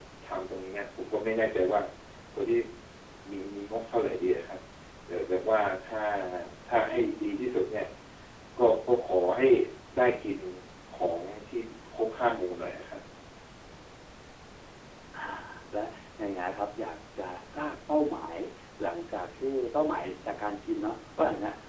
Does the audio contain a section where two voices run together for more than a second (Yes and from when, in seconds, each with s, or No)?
No